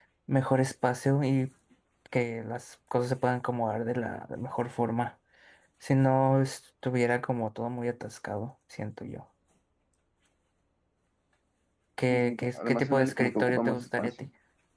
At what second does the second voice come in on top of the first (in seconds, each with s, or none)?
12.1 s